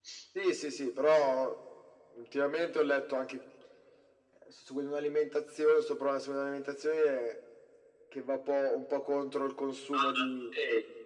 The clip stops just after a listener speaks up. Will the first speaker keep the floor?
No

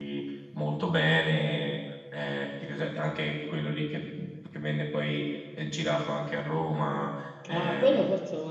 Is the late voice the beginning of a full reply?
Yes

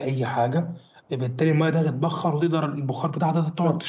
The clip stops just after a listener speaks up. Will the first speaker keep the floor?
No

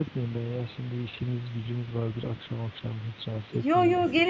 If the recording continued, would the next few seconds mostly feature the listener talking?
Yes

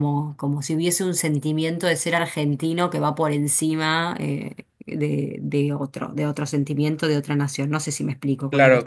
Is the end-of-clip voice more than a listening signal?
Yes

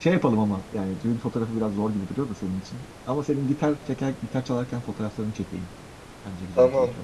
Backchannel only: No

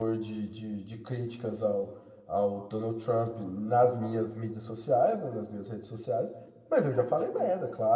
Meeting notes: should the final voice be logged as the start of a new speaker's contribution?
No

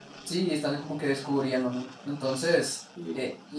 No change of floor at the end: Yes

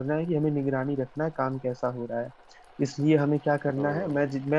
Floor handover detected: No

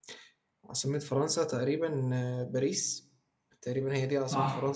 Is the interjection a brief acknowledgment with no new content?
No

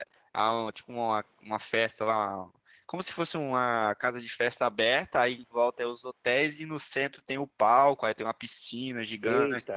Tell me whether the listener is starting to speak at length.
No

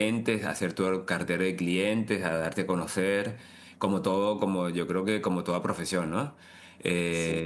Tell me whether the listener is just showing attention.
Yes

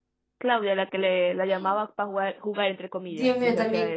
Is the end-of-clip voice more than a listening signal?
Yes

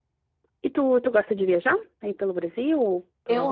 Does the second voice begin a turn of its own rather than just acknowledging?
Yes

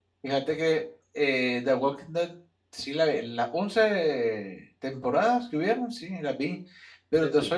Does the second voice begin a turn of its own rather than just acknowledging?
No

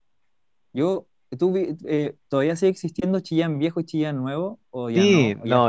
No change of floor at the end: No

